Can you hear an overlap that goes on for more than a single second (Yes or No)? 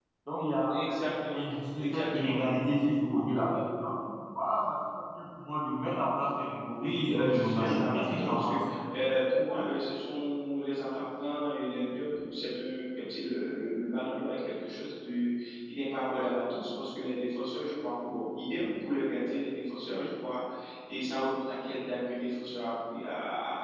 Yes